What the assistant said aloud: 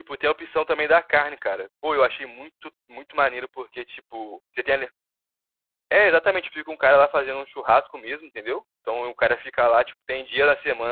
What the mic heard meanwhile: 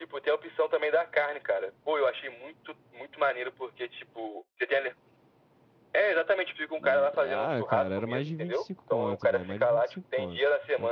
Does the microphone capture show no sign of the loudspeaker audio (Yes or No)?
No